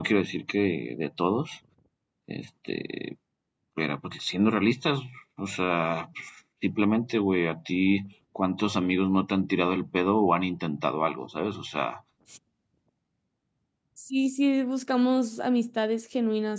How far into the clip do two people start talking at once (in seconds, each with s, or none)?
none